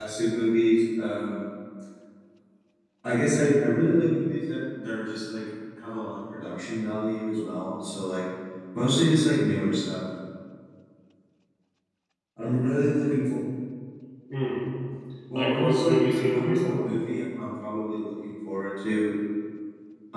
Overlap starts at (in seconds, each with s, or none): 15.4 s